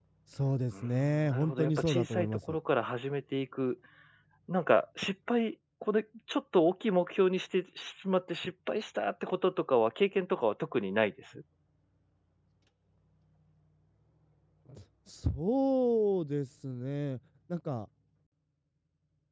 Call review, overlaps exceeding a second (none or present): present